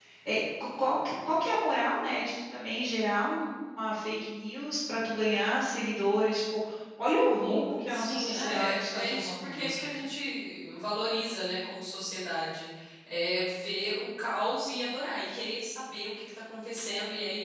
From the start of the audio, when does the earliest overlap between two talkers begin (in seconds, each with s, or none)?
7.4 s